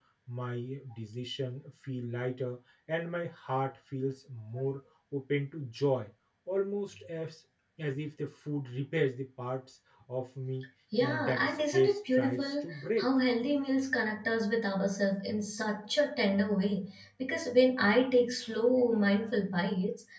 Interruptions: present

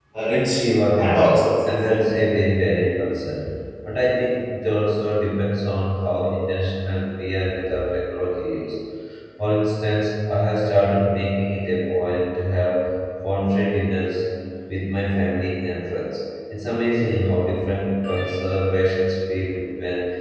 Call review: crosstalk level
present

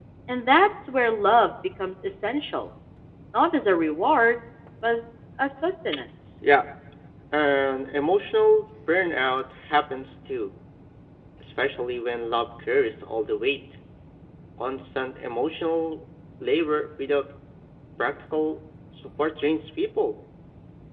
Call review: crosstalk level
none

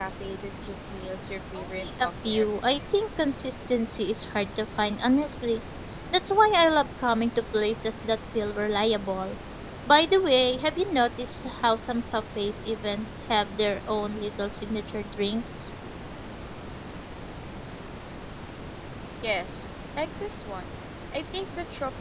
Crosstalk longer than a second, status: present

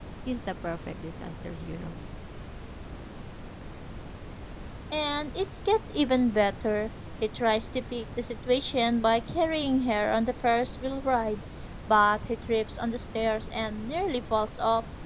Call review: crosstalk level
none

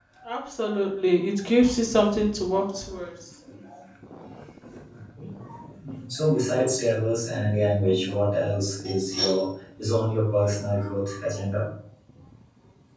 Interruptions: none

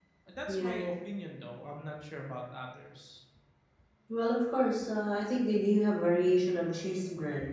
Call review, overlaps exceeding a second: none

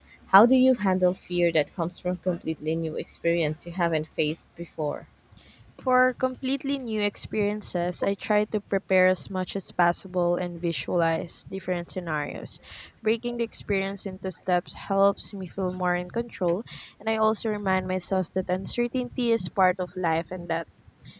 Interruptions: none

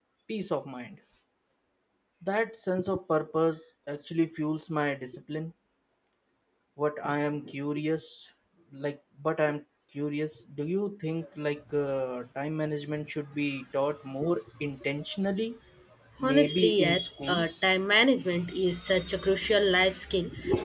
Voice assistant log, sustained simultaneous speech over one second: present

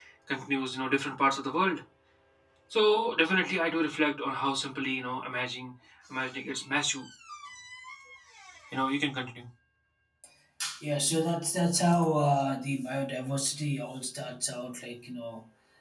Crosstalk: none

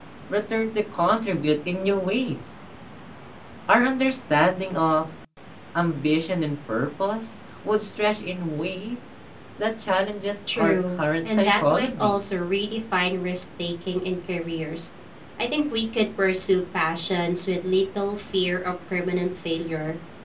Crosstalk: present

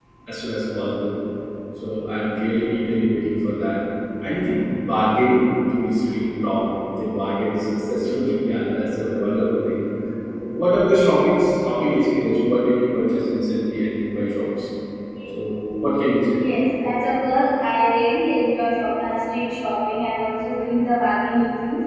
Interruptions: none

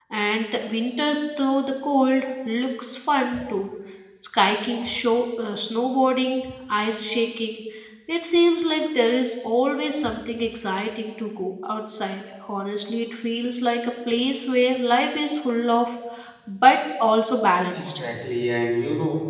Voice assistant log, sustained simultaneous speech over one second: none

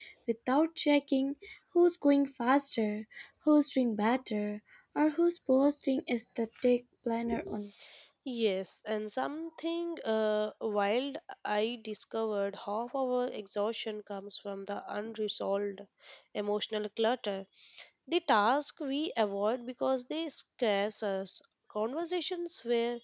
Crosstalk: none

